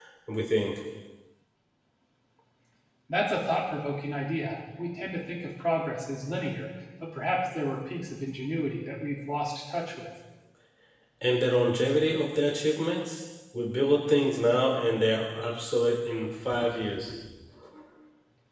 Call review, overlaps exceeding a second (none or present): none